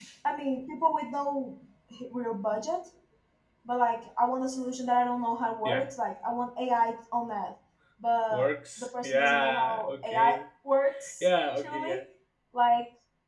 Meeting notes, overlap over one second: present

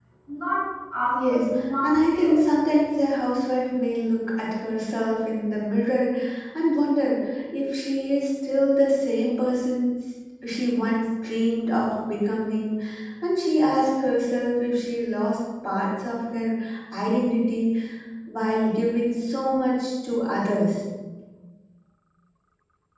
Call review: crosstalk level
present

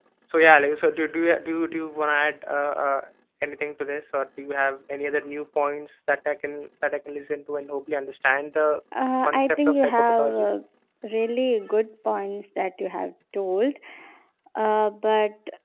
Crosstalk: present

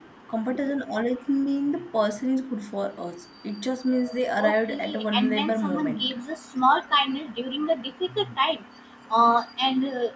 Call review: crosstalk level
present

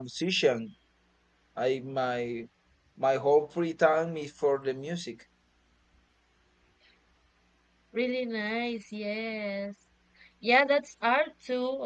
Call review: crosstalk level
none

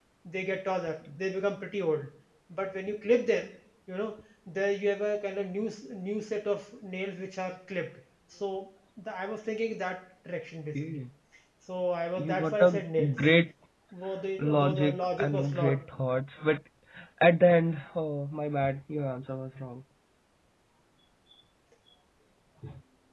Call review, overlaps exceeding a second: present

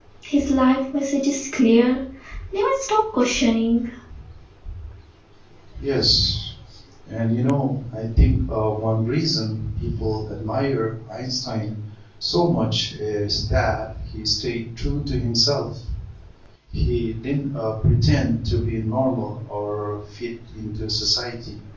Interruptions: none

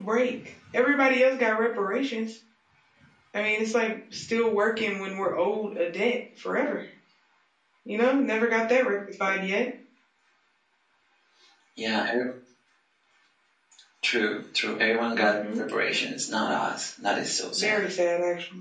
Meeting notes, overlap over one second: none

